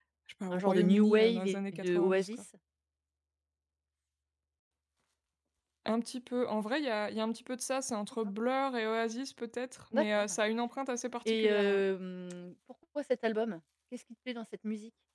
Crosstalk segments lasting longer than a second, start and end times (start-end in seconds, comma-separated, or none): 0.5-2.3